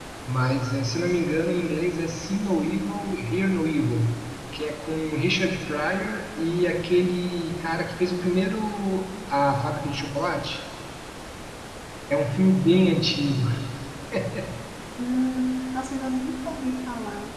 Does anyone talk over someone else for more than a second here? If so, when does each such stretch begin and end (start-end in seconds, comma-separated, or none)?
none